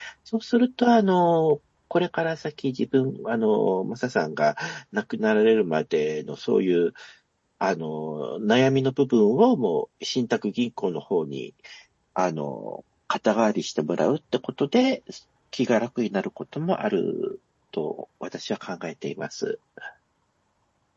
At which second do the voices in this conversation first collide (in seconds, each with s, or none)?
none